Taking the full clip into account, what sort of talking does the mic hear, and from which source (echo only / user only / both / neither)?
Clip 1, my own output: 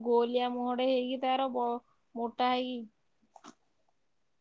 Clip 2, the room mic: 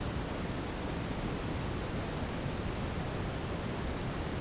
neither